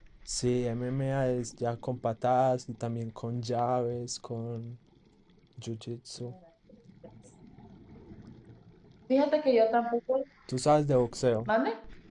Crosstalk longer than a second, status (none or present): none